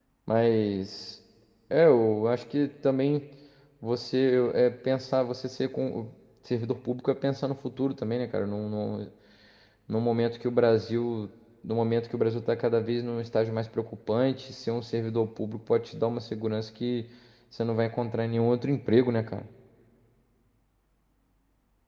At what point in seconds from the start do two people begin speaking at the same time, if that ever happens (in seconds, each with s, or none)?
none